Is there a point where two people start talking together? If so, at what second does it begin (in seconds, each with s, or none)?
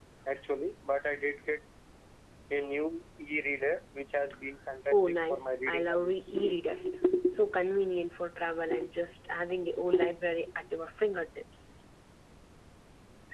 4.9 s